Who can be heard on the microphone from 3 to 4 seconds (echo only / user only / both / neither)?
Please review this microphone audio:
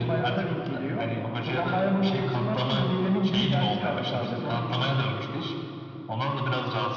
echo only